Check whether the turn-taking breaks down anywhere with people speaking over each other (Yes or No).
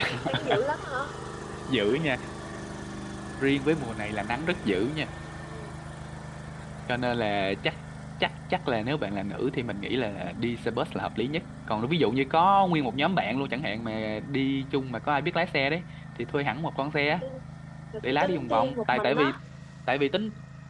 Yes